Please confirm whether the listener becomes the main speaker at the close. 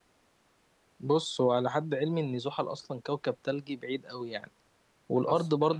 No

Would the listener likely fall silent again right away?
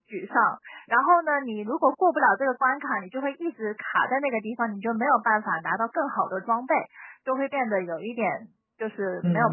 No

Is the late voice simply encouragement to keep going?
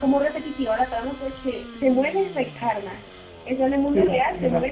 No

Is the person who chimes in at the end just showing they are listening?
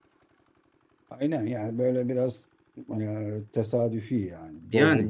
No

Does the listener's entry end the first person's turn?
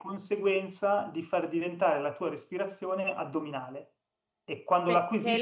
Yes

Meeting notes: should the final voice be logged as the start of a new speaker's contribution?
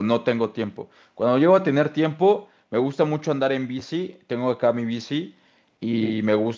No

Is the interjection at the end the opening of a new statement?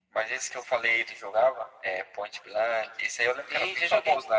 Yes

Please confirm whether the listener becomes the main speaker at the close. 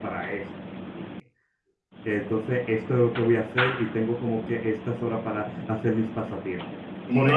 No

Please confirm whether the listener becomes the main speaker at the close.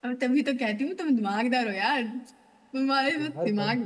No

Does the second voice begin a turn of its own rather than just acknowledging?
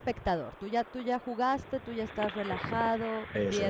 No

